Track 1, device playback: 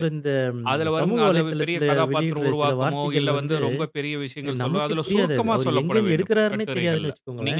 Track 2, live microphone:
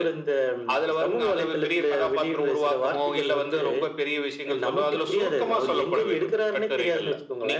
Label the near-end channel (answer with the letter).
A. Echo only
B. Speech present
A